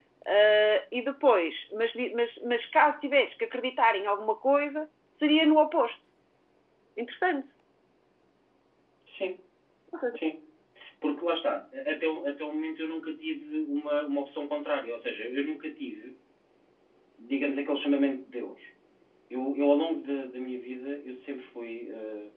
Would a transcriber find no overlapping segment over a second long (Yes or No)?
Yes